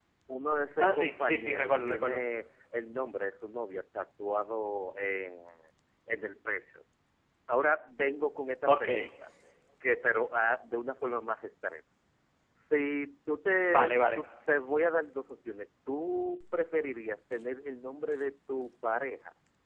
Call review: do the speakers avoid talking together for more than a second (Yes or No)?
No